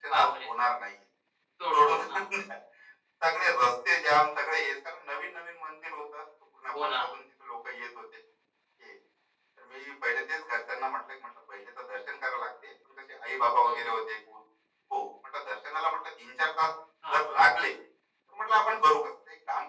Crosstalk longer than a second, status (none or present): none